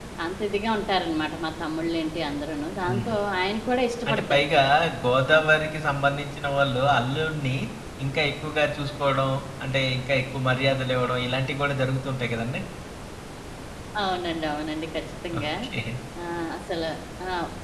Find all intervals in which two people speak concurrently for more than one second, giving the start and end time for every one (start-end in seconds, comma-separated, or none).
none